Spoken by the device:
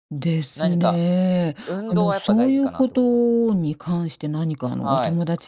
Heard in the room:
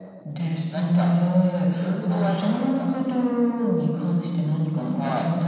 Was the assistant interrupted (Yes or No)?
No